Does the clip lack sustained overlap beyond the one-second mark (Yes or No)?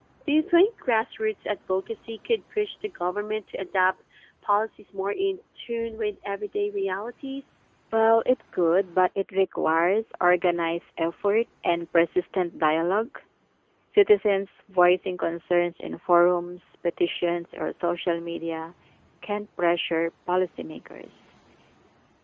Yes